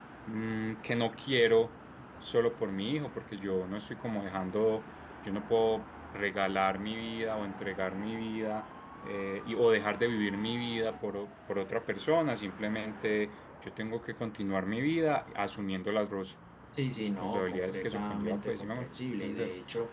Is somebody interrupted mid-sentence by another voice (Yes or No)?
Yes